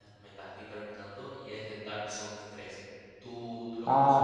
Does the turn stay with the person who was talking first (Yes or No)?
No